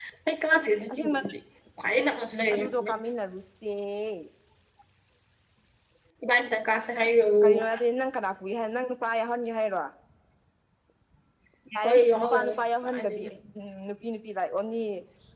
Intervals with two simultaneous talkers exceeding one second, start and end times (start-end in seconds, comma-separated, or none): 11.8-13.2